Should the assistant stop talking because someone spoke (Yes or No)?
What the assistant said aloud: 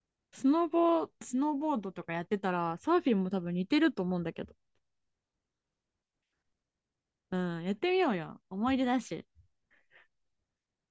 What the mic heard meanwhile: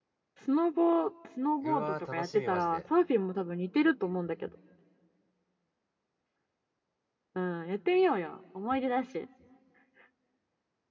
Yes